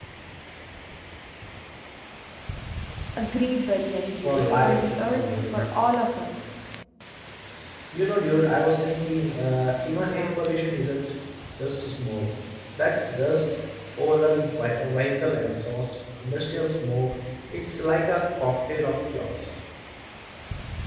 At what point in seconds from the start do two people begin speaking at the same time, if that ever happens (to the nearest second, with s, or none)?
4 s